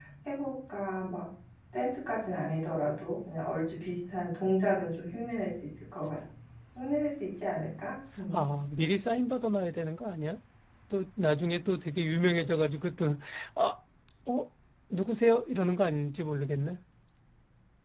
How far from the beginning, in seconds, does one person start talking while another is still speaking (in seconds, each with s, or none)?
none